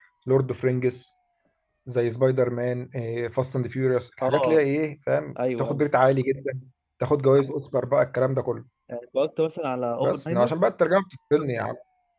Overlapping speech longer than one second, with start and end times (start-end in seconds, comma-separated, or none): none